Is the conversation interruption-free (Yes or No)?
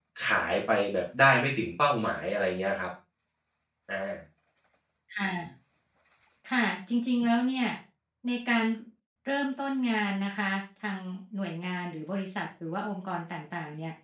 Yes